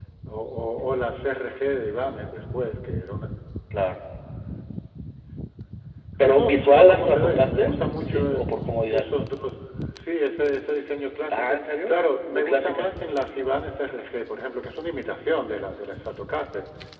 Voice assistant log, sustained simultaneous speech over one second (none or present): present